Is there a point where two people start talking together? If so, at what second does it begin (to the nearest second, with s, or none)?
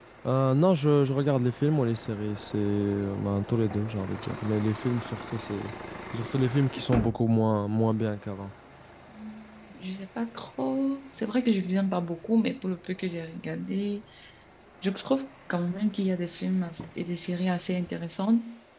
none